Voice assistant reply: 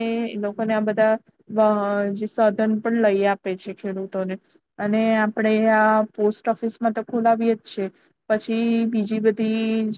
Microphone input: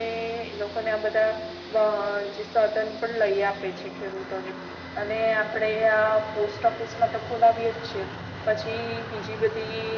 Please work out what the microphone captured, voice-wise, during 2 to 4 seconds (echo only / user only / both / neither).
echo only